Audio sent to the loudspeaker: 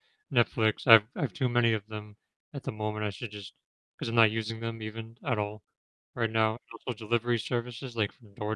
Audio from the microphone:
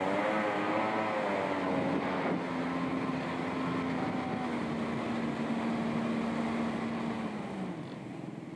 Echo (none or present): none